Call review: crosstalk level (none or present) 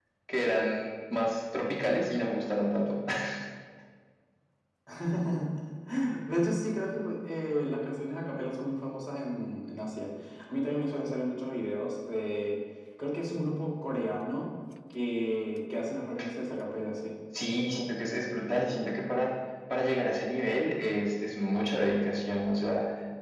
none